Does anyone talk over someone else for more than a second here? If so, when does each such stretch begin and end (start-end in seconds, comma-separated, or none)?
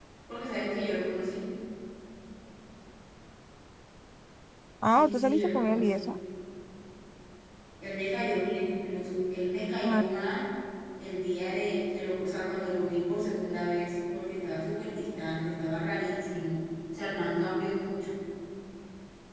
4.8-6.1